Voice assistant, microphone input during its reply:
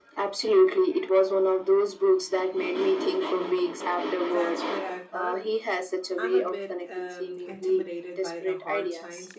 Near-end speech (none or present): present